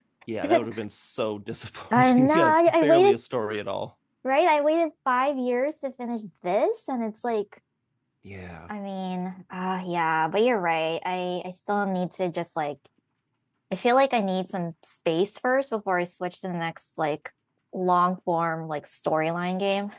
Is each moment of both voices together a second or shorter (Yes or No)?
No